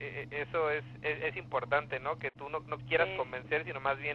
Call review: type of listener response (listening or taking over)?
listening